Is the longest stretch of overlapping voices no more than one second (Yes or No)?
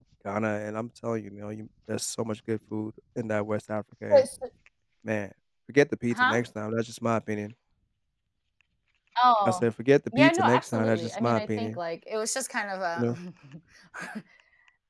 No